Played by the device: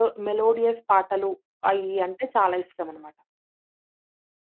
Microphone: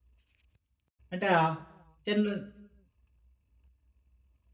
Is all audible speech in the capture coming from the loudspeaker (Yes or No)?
No